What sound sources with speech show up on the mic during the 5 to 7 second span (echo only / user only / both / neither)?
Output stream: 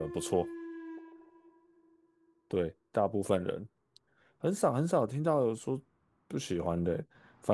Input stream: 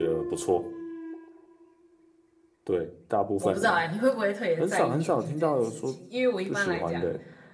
both